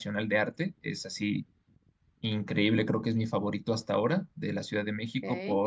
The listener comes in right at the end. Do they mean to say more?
No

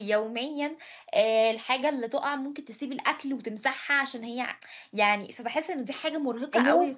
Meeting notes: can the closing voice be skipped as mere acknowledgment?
No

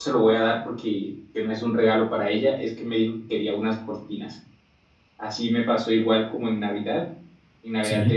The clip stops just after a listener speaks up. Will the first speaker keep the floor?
Yes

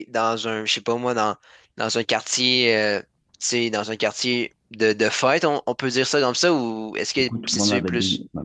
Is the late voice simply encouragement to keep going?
No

